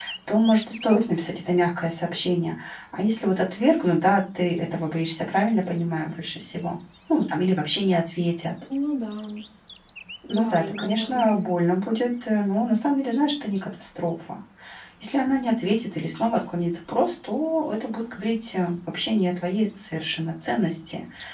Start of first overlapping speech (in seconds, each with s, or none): 10.3 s